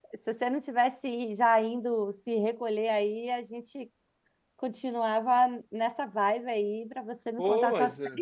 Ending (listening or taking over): taking over